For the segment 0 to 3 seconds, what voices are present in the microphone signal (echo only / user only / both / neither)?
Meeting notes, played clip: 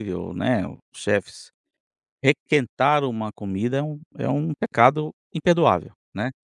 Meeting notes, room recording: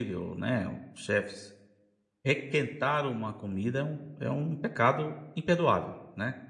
echo only